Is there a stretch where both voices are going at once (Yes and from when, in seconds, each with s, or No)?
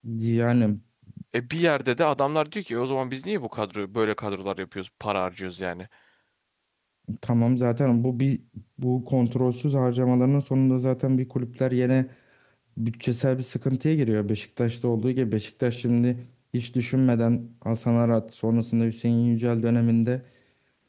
No